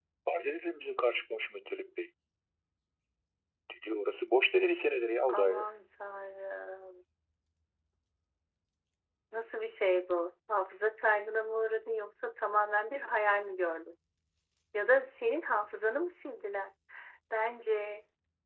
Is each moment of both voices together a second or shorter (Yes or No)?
Yes